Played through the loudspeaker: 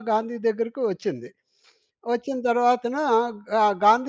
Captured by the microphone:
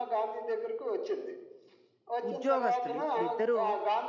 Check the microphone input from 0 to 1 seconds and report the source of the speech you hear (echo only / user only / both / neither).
echo only